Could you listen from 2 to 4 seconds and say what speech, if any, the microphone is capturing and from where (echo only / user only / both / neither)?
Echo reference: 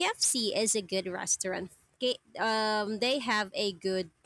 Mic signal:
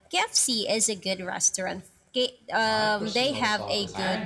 both